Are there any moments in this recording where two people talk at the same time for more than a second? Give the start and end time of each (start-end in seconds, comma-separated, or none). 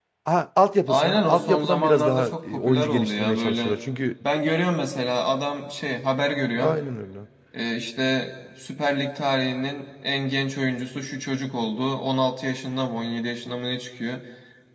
0.9-3.8